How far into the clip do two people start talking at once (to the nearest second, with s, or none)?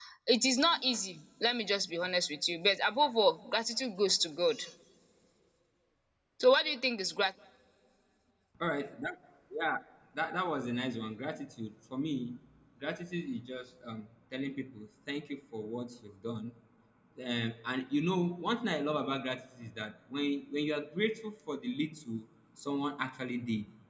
none